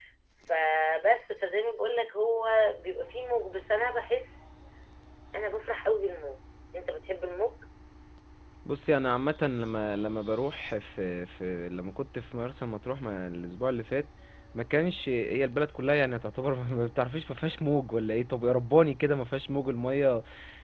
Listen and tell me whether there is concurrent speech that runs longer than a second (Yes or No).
No